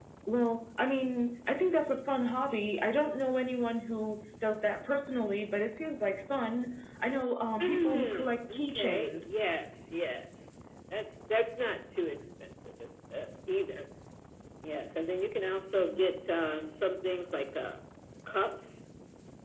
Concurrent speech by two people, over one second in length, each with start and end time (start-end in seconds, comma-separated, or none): 7.6-9.3